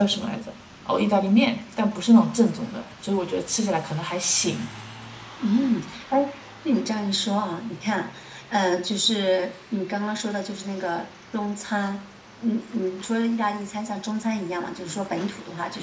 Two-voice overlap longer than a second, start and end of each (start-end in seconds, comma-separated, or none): none